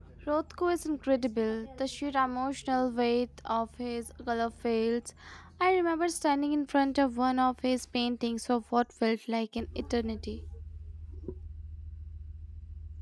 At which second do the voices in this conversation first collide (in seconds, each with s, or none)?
none